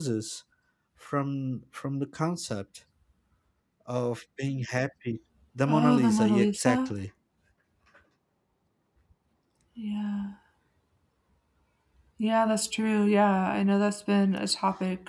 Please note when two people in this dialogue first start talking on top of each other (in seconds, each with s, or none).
5.7 s